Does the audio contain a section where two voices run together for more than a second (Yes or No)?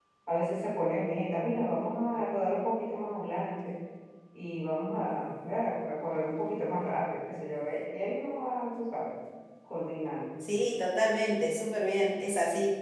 No